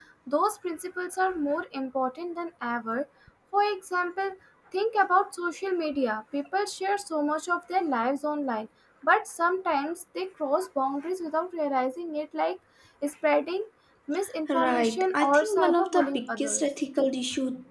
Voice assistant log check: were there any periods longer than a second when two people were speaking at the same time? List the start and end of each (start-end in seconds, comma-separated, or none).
14.5-16.7